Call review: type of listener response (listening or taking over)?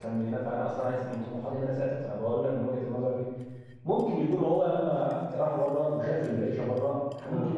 listening